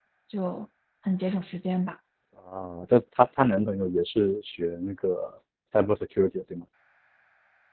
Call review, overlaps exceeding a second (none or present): none